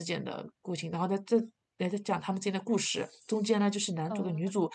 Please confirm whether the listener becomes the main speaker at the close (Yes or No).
No